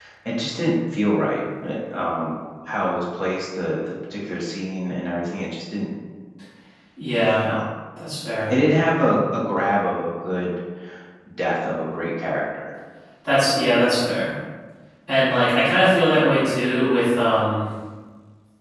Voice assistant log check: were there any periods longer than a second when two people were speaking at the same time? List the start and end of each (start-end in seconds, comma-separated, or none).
none